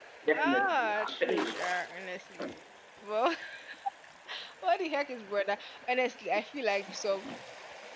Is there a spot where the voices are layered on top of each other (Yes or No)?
Yes